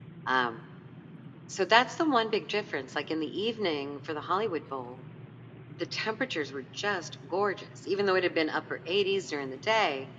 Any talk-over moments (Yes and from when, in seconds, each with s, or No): No